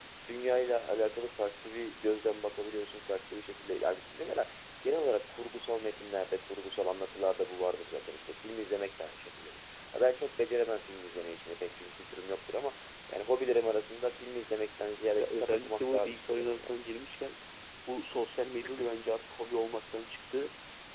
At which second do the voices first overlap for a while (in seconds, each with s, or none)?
15.2 s